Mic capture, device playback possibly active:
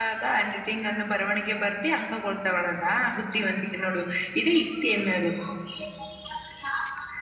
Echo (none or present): none